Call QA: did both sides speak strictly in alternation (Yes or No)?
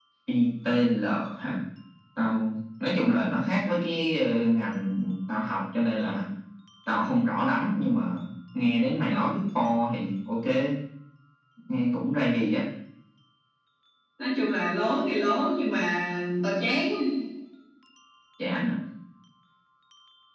Yes